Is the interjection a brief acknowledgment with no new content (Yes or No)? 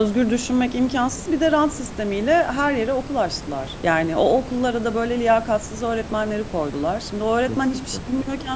Yes